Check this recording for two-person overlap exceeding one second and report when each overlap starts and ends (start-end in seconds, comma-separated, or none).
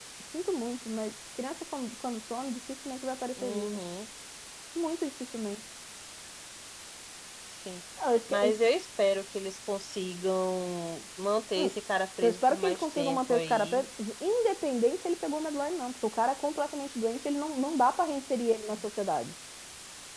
12.2-13.9